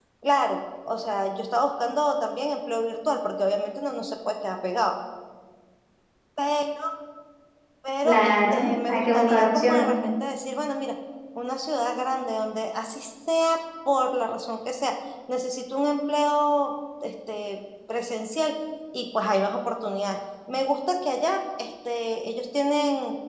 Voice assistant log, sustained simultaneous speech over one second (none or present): present